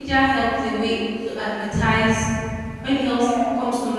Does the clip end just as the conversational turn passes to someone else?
No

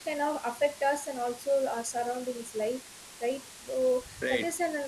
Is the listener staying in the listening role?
Yes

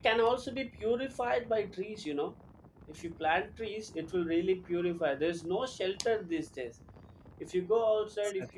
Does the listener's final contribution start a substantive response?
No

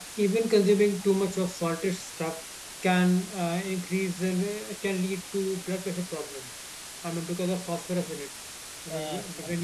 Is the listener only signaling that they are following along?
No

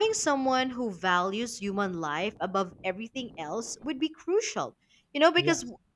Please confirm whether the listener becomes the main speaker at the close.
No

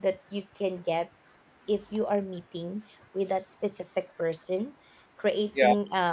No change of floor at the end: Yes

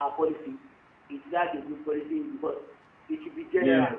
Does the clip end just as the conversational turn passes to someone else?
No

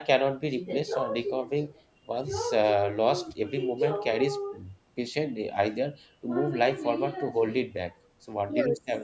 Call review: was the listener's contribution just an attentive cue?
No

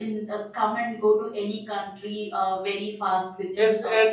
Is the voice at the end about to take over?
Yes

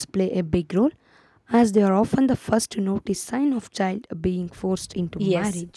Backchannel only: No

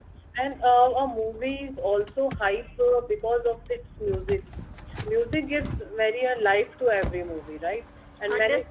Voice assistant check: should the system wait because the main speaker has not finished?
No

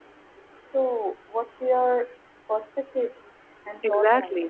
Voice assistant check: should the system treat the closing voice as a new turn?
Yes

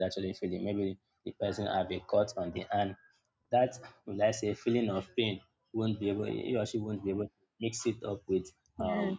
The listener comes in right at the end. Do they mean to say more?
No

